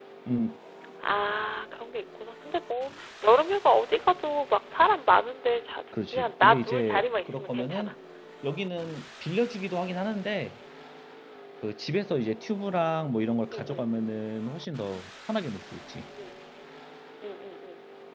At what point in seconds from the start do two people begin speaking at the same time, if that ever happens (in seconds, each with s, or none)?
6.1 s